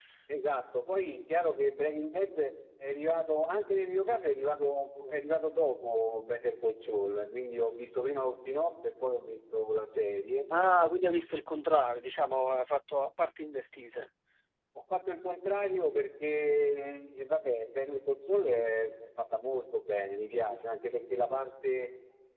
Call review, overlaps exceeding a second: none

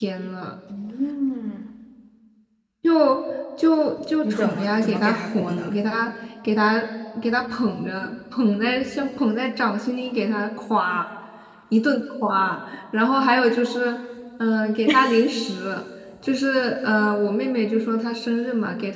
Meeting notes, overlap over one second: present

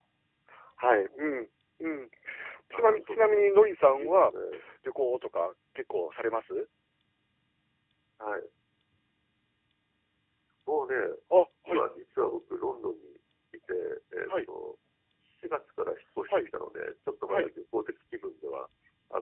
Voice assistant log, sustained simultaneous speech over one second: present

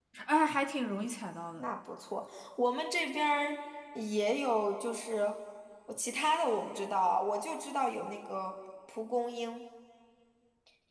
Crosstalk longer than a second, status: none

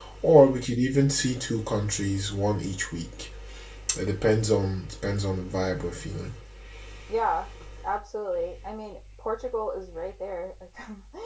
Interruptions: none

